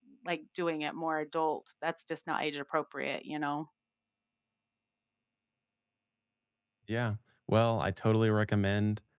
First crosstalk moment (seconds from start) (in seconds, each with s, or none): none